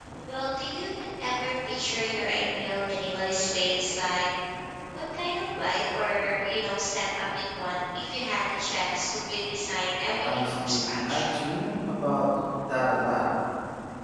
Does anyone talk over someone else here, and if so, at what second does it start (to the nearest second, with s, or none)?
10 s